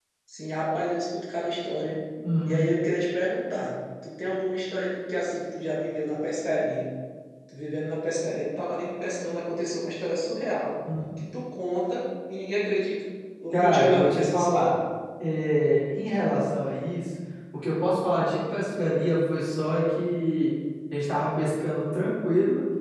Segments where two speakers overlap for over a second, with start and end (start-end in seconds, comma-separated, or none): 13.5-14.8